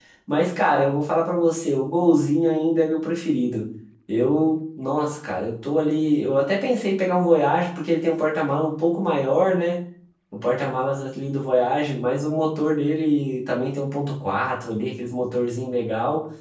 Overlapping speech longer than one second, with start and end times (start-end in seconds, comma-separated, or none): none